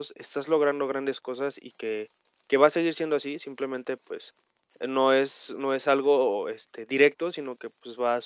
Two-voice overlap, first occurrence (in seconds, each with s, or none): none